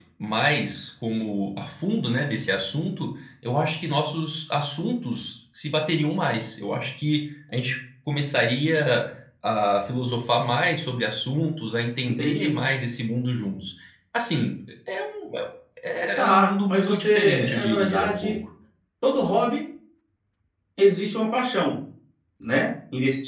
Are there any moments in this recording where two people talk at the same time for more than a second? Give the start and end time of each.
16.2-18.4

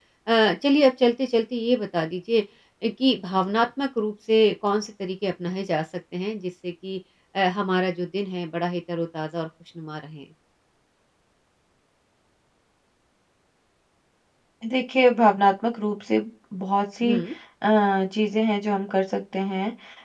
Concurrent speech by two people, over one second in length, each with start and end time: none

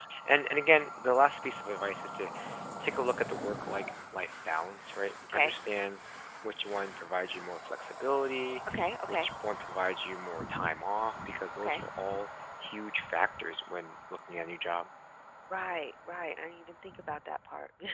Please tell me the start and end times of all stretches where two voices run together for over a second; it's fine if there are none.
none

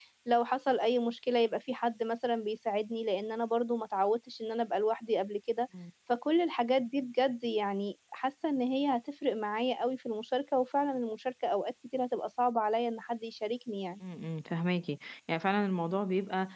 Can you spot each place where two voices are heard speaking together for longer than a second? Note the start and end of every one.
none

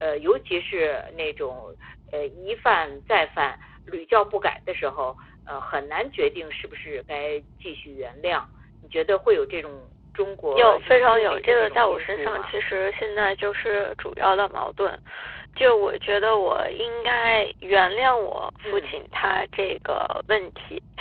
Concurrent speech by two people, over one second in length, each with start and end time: 10.5-12.5

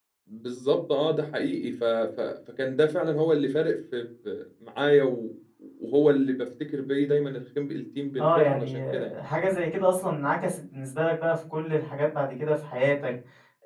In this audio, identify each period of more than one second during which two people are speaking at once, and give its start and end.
8.2-9.4

